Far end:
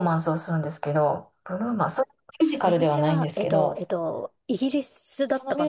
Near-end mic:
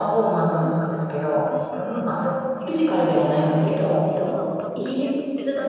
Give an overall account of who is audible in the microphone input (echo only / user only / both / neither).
both